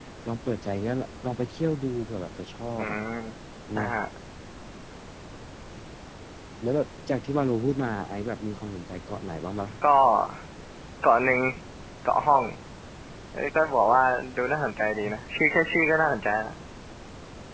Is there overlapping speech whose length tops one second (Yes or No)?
No